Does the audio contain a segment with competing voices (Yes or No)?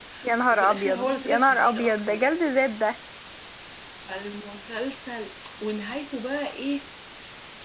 Yes